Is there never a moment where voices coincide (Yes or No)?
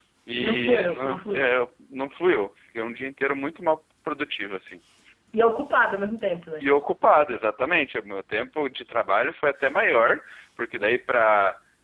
No